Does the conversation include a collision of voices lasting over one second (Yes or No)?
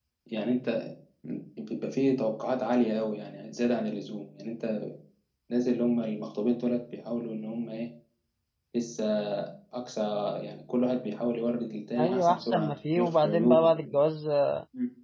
Yes